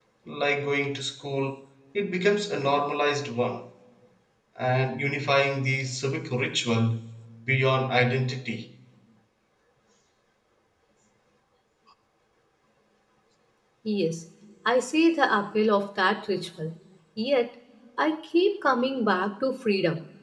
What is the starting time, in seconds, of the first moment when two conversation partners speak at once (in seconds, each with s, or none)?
none